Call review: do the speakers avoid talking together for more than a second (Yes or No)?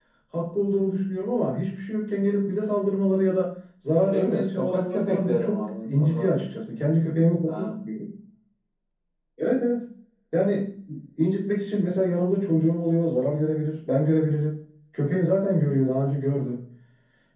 No